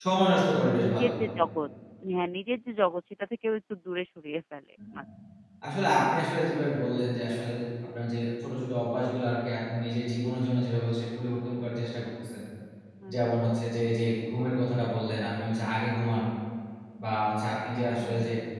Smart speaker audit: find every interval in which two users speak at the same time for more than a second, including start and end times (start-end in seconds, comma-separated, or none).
none